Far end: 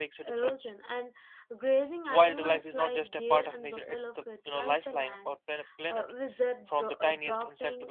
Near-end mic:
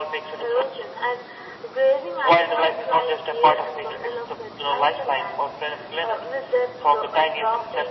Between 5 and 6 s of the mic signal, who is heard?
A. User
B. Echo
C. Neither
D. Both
B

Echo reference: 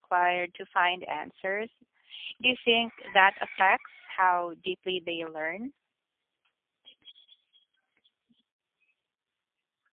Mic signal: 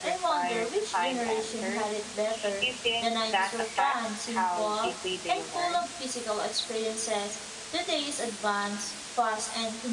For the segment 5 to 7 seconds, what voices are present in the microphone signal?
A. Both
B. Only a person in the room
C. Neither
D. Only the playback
A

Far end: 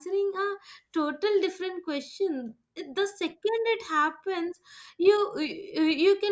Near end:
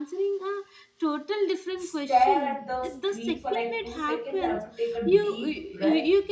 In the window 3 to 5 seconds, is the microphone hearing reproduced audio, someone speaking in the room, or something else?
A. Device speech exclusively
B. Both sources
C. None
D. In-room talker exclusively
B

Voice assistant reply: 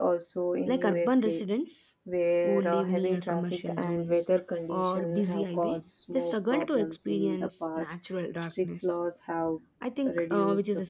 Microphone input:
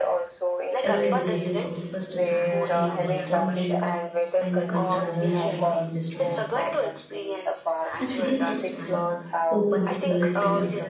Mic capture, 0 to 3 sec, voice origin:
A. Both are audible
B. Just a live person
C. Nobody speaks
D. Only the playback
A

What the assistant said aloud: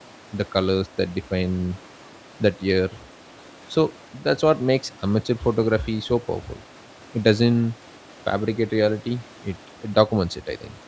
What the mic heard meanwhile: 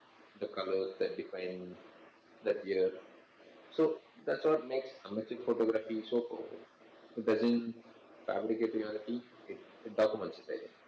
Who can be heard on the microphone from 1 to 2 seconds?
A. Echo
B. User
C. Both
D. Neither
A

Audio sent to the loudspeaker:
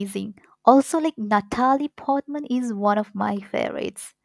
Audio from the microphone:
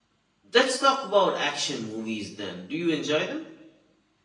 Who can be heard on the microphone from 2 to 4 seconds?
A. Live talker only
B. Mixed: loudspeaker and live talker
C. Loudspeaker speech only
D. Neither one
A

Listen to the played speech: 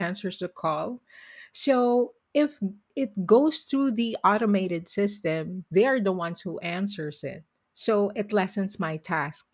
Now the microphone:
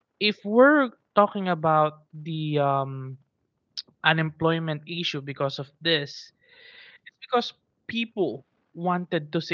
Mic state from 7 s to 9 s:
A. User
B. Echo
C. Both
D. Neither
A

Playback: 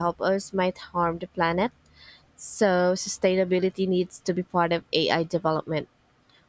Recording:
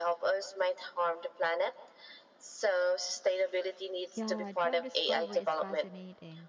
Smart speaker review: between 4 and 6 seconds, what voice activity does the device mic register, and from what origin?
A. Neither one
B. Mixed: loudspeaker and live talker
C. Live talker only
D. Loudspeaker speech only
B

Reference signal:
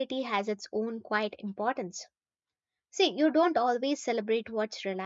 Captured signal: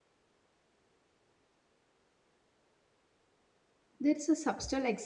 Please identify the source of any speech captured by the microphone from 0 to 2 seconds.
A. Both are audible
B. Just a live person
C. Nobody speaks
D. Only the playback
C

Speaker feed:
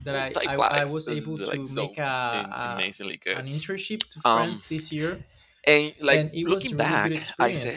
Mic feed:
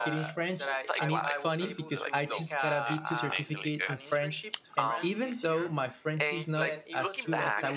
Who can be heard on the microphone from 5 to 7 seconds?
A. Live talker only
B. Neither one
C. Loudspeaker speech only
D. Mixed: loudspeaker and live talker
D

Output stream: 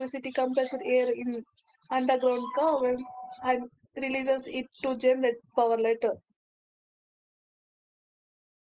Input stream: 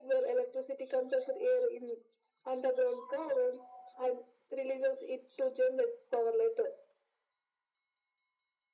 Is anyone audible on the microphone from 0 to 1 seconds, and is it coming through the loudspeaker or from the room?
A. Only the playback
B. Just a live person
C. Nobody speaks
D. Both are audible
A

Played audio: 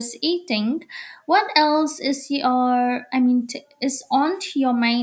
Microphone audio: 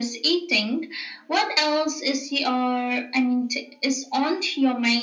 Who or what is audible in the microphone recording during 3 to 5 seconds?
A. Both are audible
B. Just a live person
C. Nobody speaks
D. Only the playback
D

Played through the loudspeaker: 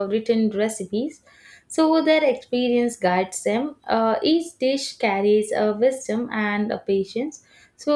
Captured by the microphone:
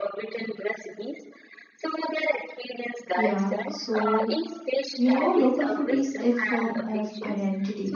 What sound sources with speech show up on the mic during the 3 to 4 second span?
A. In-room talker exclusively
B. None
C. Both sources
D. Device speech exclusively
C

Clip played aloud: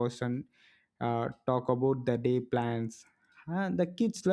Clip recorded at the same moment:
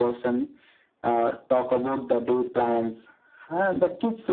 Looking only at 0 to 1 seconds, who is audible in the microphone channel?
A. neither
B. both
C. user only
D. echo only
D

